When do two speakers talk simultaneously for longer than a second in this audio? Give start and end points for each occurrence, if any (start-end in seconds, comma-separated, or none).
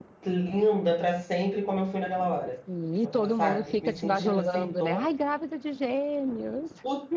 3.0-5.0